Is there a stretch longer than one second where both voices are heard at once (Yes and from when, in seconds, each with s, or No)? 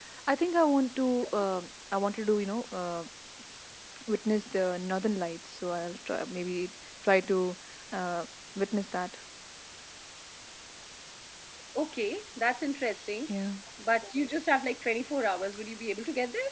No